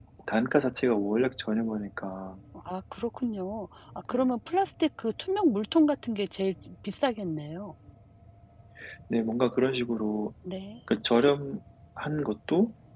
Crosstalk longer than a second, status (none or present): none